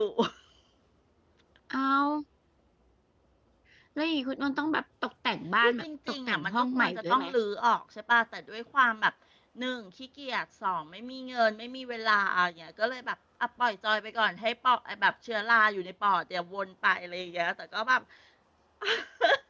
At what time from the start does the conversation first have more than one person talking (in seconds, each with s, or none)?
5.6 s